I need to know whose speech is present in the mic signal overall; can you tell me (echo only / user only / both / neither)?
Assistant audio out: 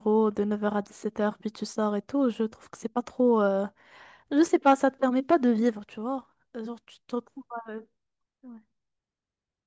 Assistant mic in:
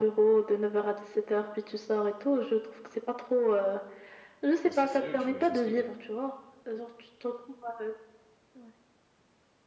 both